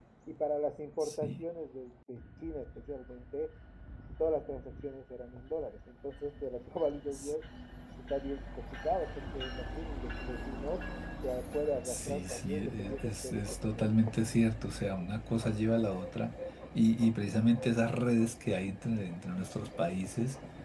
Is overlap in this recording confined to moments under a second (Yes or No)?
No